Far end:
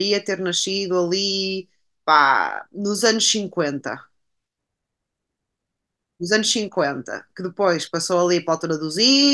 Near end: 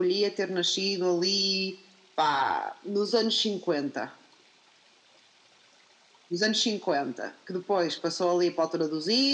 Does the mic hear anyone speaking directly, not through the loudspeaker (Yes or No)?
No